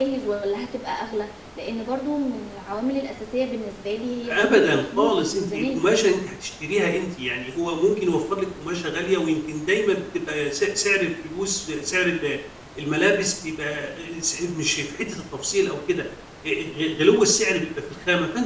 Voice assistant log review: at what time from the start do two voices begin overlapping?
4 s

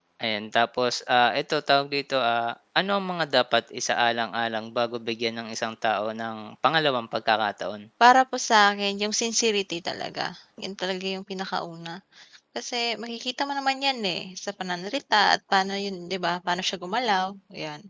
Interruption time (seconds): none

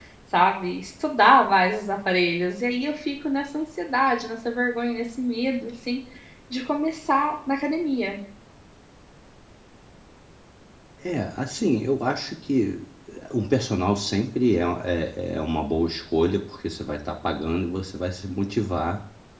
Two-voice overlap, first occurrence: none

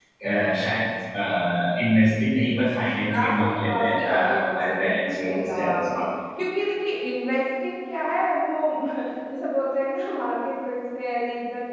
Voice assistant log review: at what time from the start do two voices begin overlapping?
3 s

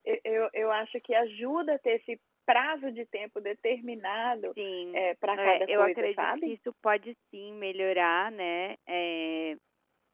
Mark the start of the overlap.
5 s

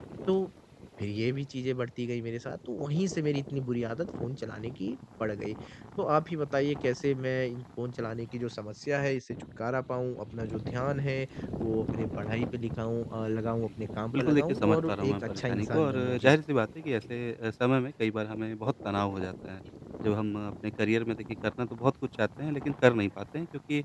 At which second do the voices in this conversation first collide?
14 s

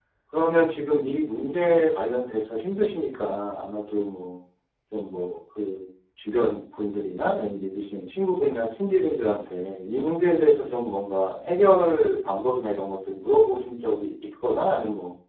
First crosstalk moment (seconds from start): none

